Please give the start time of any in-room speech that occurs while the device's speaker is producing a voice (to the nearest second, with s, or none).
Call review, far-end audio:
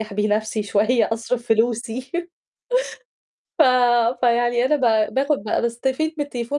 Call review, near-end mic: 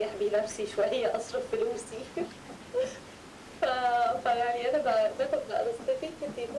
none